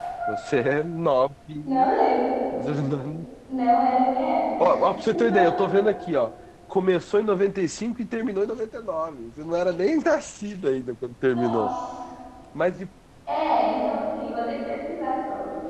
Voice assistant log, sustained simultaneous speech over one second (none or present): none